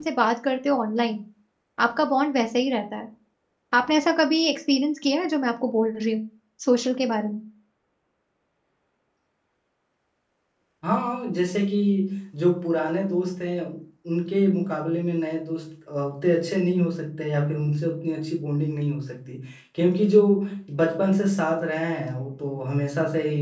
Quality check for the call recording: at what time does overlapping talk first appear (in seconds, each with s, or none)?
none